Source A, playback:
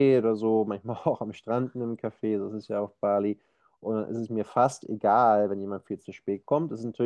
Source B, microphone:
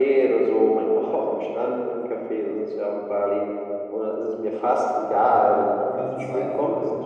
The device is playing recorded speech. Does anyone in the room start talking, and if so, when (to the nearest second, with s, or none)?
5 s